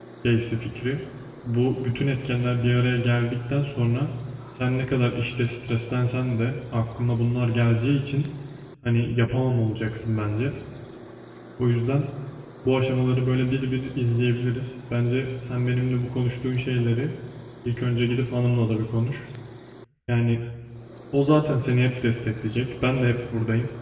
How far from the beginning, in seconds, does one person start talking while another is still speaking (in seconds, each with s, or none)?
none